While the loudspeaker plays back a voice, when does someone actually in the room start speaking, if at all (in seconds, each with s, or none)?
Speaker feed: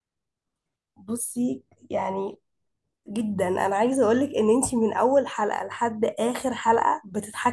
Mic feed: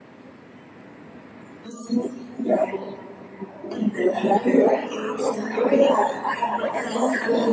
5.3 s